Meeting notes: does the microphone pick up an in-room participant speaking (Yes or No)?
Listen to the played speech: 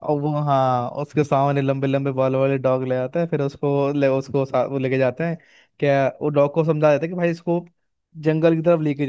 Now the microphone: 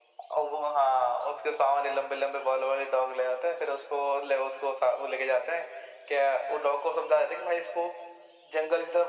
No